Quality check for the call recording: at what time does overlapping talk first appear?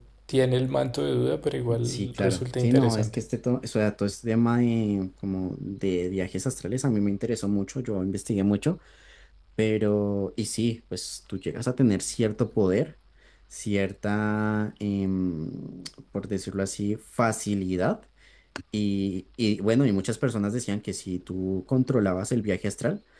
1.7 s

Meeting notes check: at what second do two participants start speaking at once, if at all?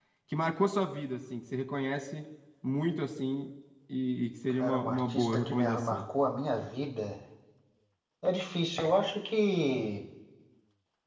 4.6 s

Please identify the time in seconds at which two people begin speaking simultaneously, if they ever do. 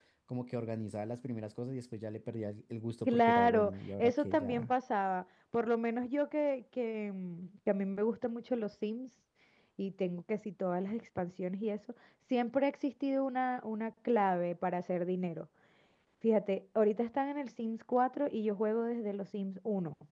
3.0 s

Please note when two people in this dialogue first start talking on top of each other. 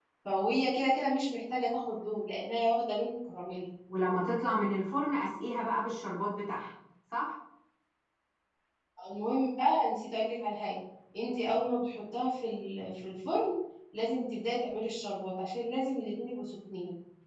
none

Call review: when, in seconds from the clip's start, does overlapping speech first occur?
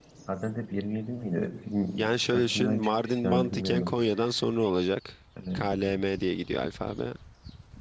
2.0 s

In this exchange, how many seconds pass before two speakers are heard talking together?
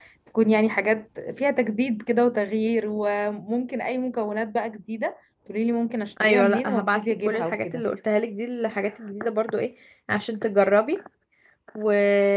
6.2 s

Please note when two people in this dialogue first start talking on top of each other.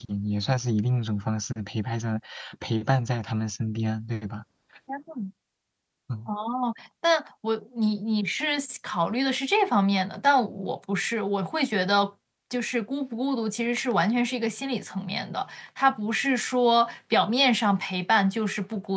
none

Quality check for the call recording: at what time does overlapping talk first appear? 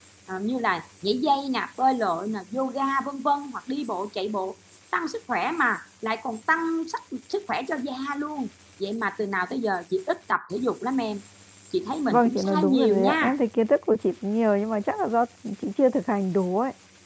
12.1 s

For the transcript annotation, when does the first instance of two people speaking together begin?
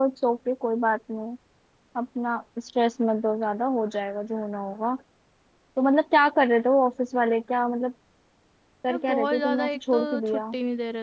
8.9 s

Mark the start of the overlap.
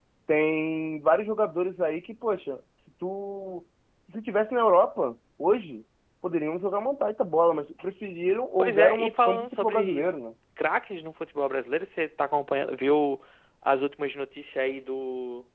8.6 s

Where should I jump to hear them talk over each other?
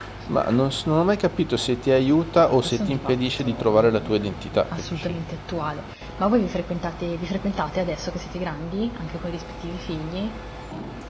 2.4 s

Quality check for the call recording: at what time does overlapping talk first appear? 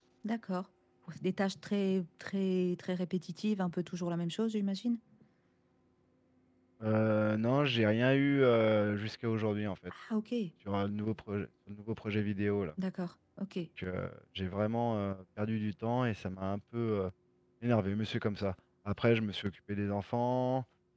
none

